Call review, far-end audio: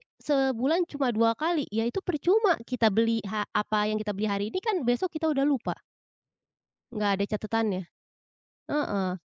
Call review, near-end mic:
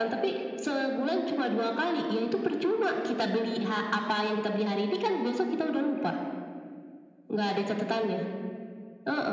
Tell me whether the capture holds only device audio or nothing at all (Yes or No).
Yes